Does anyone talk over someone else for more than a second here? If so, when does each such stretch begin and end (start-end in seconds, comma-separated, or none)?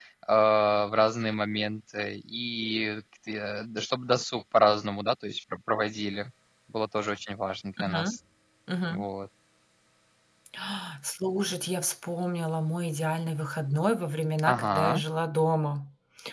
none